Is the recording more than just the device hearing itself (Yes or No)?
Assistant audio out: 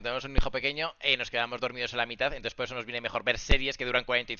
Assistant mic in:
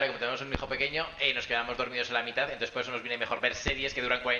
No